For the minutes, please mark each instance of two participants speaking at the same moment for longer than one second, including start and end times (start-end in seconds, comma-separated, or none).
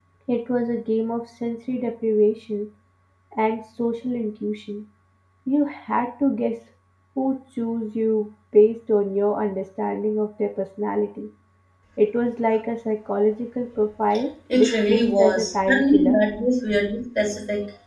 14.6-16.2